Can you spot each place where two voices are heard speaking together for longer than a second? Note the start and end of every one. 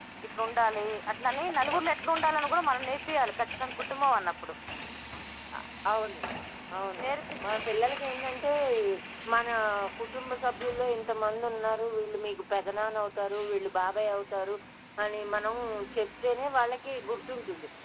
none

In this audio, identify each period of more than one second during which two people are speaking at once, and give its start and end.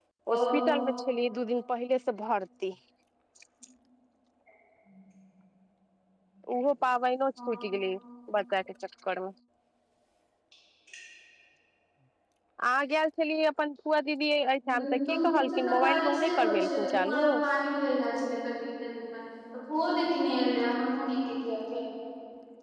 14.7-17.3

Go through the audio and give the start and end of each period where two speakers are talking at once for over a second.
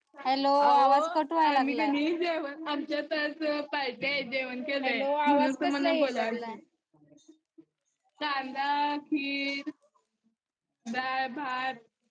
4.8-6.5

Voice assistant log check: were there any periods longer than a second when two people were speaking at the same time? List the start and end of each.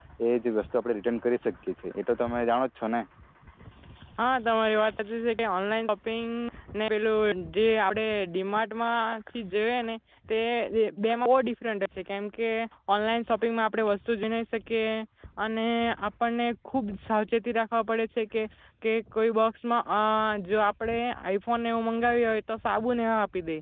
none

